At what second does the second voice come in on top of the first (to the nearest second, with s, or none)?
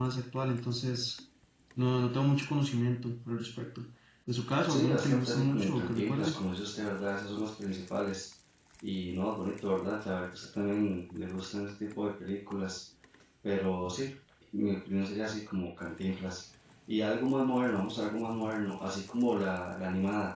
5 s